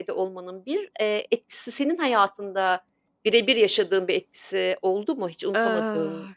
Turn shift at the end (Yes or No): Yes